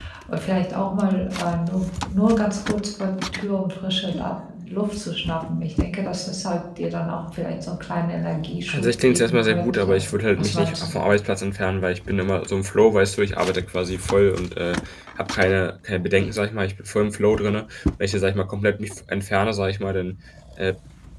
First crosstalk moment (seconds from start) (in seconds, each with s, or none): 8.7 s